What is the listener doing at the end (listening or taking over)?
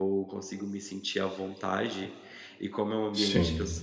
listening